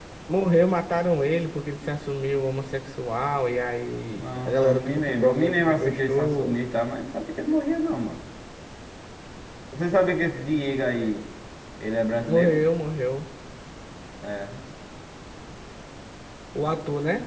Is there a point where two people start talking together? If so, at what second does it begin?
4.2 s

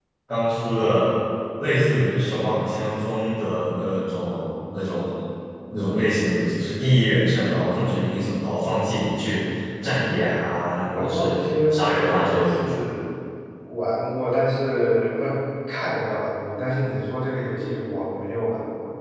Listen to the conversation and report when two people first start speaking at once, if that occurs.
11.0 s

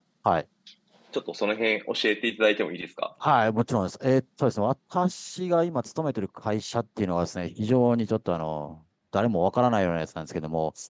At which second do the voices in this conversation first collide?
none

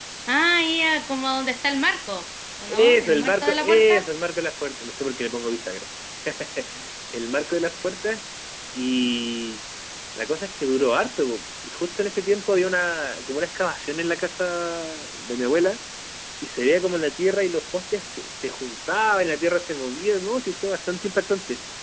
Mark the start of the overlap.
2.7 s

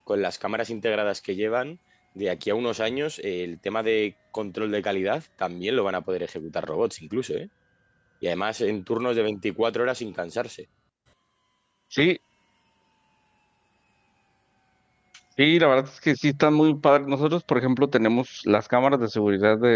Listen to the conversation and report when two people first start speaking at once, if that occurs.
none

